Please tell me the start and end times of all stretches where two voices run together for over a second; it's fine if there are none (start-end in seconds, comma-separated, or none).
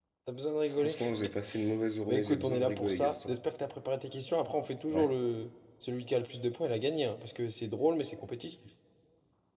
2.1-3.3